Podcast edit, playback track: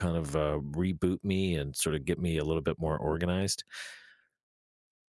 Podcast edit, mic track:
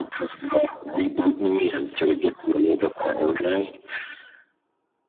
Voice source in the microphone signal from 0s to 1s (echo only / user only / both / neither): echo only